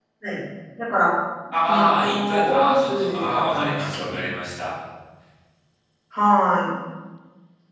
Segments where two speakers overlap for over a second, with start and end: 1.6-4.3

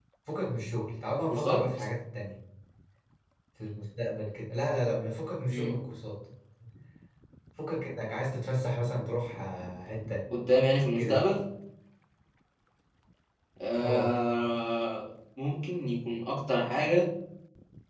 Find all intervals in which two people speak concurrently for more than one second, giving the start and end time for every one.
none

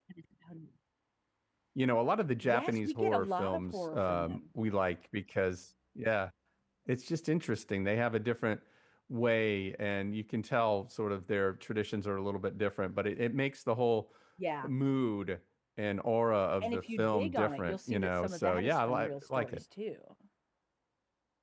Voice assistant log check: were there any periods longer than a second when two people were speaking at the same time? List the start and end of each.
2.4-4.4, 16.6-19.6

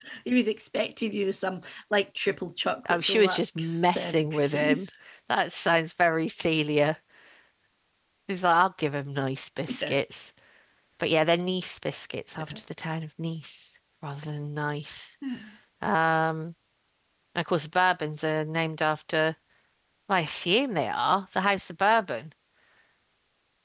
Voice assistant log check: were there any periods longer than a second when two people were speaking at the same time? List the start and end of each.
2.9-4.9

